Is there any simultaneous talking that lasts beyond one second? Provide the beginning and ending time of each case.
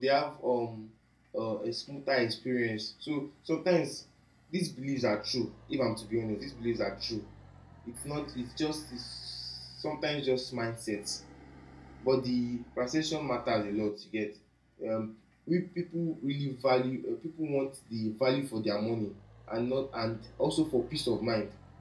none

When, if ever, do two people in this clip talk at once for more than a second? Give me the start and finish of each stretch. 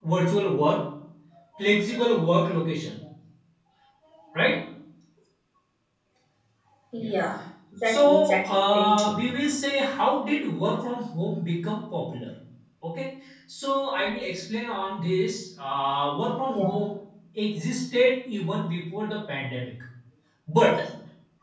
7.8-9.2

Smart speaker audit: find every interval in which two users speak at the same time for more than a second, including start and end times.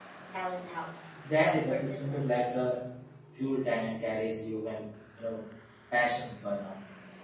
1.4-2.8

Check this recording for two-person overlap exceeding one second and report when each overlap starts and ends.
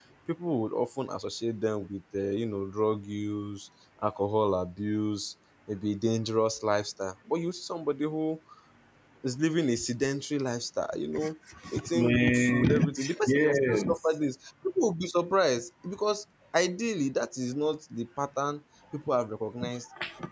11.9-14.0

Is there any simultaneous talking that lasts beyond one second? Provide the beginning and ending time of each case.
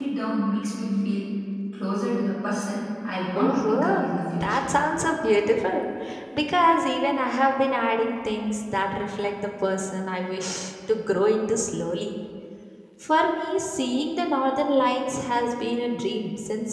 3.4-4.7

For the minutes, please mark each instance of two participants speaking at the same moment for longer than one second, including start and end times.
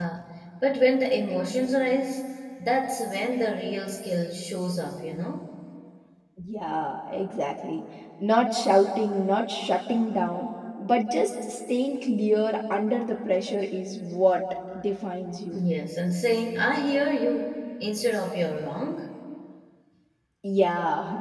none

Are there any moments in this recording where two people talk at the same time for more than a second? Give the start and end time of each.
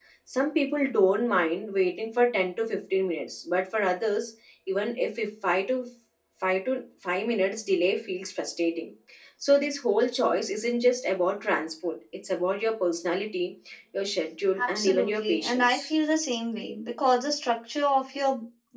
14.7-15.9

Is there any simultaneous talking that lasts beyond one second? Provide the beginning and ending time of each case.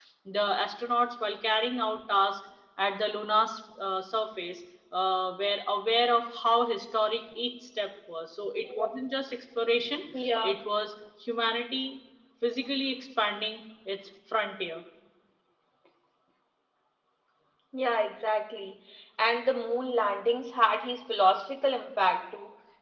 none

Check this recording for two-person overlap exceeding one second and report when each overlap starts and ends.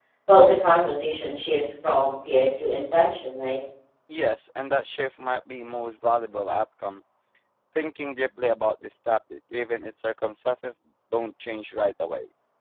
none

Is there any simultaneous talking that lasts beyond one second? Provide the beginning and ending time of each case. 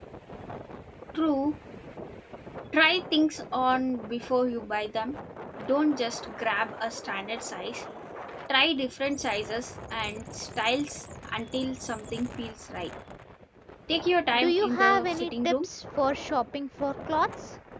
14.4-15.7

